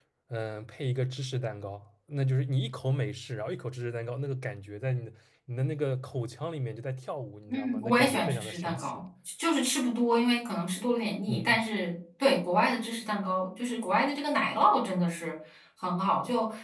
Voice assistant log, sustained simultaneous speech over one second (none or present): present